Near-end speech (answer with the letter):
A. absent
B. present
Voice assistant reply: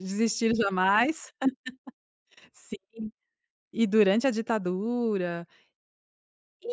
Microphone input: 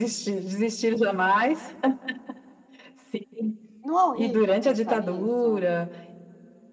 B